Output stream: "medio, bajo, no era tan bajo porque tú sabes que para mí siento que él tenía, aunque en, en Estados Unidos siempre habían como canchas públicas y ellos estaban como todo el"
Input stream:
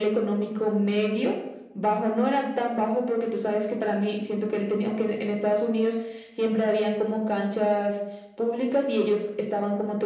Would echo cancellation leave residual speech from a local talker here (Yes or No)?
No